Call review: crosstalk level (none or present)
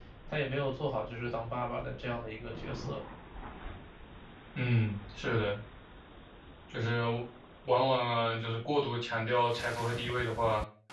none